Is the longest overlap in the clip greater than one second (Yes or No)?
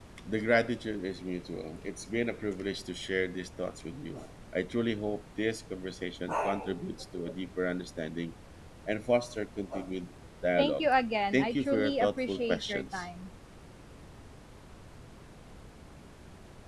Yes